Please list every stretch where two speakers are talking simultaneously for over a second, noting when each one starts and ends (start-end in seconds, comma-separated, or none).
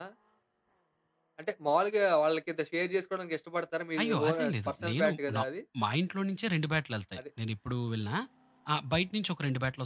4.0-5.4